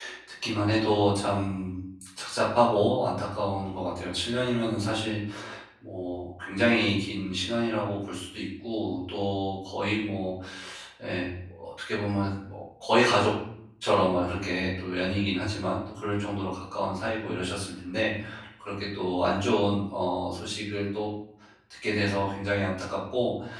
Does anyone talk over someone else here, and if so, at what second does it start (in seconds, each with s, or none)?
none